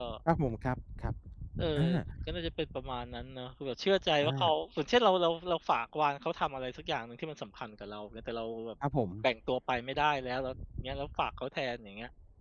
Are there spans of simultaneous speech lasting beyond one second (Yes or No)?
No